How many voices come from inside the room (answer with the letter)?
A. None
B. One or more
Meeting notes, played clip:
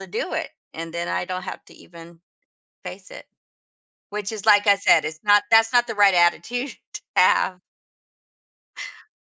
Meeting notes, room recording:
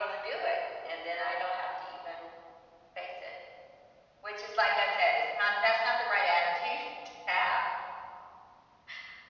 A